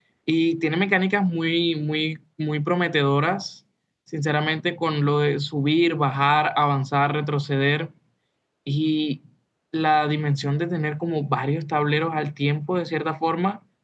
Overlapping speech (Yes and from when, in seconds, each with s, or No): No